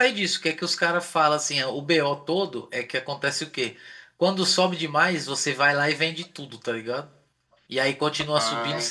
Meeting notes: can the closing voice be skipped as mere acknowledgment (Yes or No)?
Yes